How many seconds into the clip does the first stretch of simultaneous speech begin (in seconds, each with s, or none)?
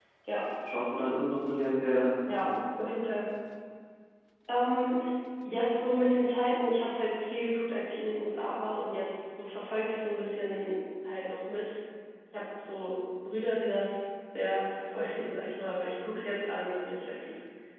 none